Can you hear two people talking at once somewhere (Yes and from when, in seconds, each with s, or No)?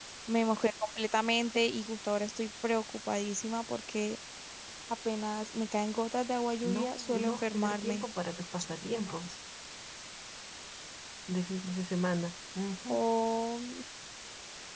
Yes, from 6.6 s